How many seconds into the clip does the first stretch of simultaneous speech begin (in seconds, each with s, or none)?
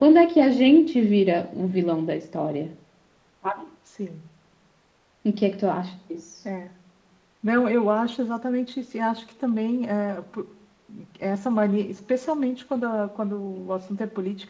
none